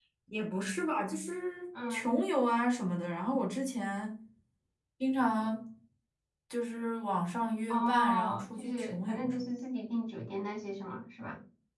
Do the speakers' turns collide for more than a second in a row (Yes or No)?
Yes